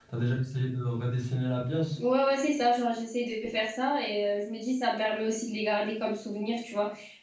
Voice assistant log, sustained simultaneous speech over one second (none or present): none